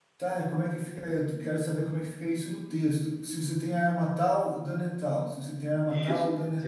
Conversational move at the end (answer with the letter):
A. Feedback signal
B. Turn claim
B